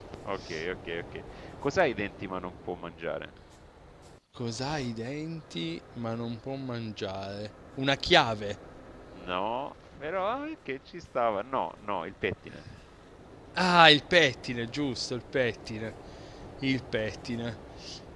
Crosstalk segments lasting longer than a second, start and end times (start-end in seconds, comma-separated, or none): none